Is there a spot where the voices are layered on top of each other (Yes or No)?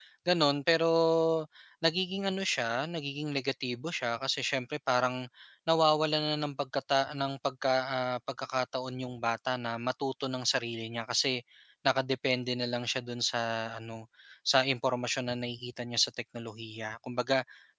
No